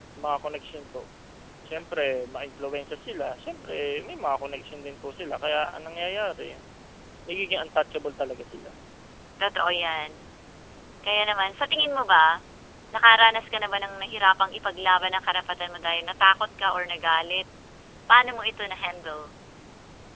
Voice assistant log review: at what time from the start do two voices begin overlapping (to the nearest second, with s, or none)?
none